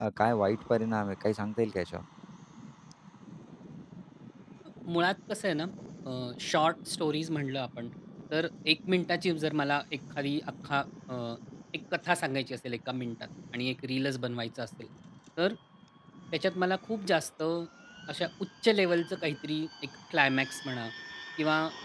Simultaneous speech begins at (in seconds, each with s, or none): none